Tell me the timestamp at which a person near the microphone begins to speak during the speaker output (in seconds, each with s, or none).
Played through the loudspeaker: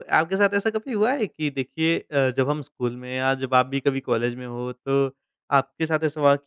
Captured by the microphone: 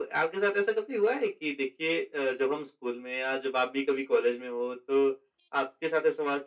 none